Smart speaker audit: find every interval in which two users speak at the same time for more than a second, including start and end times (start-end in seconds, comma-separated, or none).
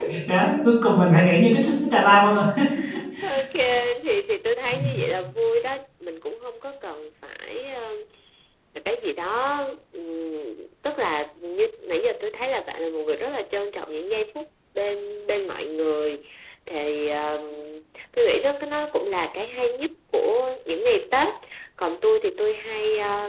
none